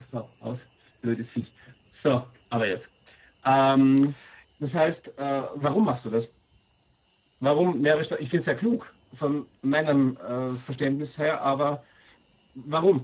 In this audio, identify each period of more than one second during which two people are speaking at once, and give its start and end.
none

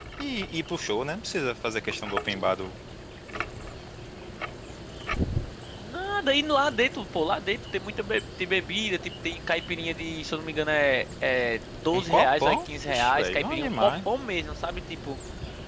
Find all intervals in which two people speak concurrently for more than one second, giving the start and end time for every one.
11.9-13.9

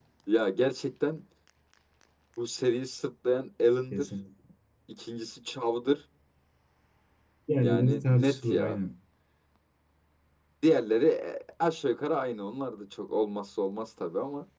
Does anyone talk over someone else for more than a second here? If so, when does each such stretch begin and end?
7.6-8.8

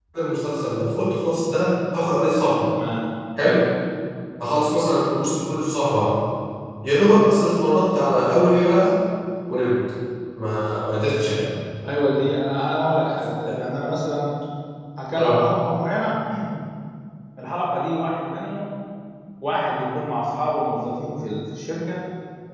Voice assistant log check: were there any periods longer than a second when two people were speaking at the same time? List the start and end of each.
none

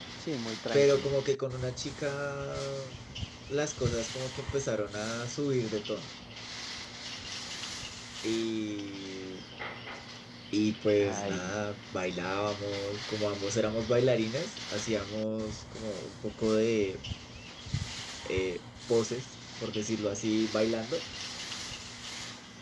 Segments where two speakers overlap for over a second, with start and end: none

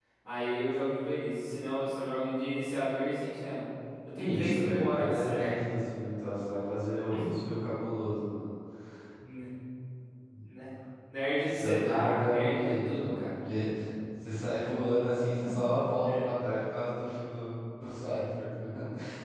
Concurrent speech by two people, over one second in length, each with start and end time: 4.2-5.6, 11.5-13.3

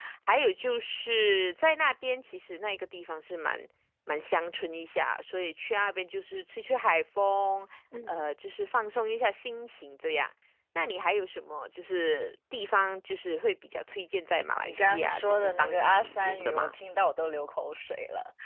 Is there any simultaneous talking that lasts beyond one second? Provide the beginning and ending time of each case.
14.6-16.8

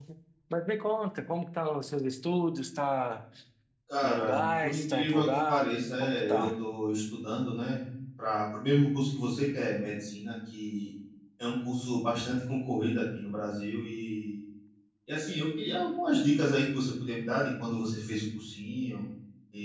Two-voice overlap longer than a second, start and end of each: 4.0-6.5

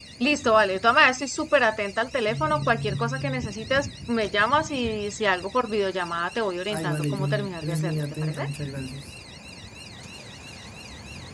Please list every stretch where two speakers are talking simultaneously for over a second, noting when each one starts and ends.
6.7-8.4

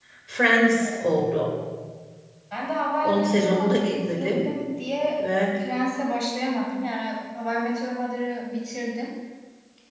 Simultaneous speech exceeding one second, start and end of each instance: 3.0-4.5

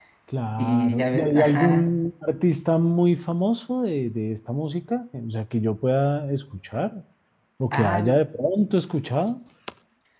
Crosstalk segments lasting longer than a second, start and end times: 0.6-1.8

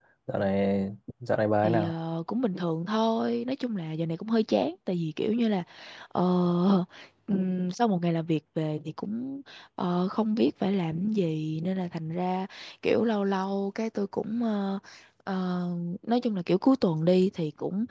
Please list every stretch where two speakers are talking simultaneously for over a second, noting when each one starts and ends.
none

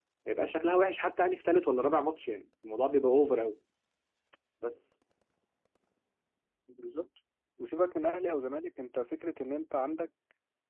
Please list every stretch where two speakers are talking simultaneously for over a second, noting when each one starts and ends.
none

